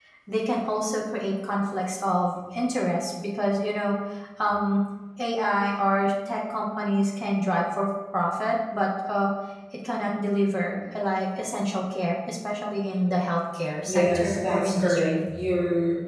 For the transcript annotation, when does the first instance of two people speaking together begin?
13.8 s

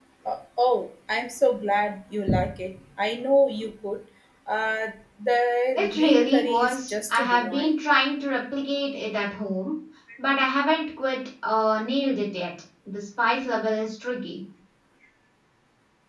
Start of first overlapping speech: 5.8 s

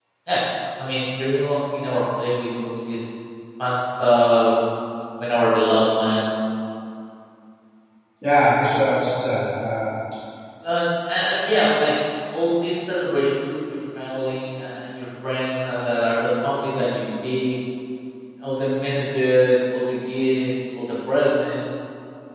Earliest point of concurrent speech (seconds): none

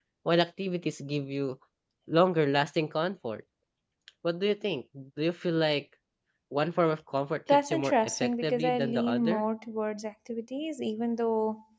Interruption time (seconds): 7.5 s

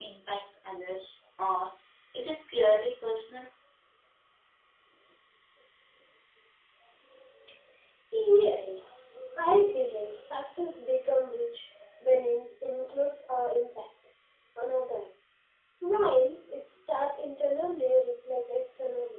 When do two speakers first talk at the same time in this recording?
none

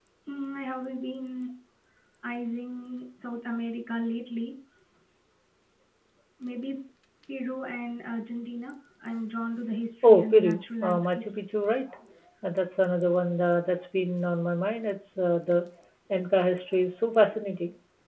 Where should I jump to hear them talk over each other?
10.0 s

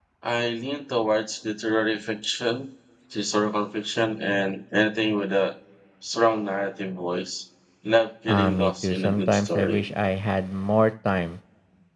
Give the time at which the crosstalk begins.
8.3 s

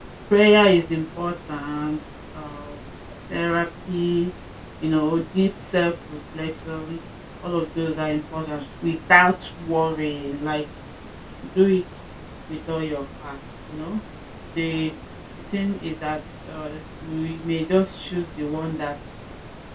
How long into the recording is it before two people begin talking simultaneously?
none

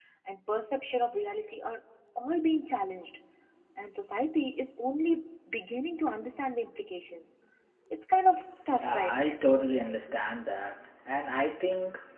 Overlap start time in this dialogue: 8.8 s

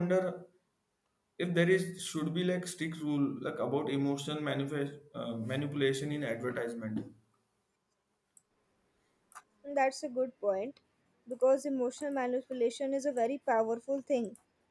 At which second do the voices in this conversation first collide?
none

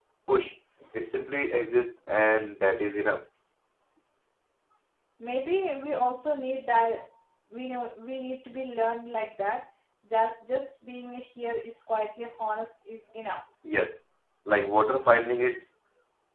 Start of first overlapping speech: none

